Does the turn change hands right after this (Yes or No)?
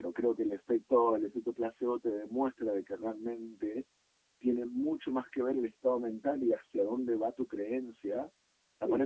No